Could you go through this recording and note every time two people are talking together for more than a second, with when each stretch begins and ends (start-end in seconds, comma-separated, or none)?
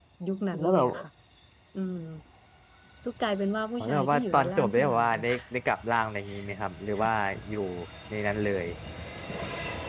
3.9-5.2